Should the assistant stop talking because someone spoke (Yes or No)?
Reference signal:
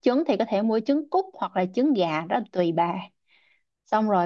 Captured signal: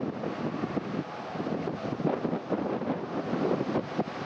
No